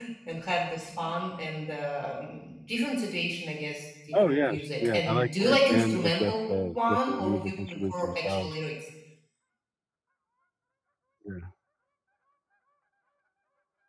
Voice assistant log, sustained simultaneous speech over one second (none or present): present